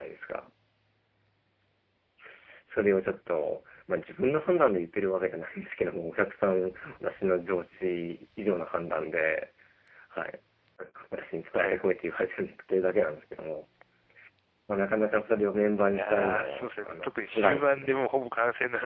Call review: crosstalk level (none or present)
present